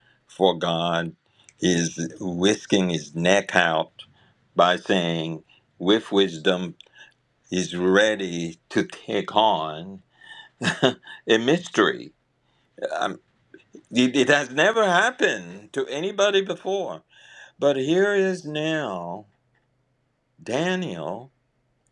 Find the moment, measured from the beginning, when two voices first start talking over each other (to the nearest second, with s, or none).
none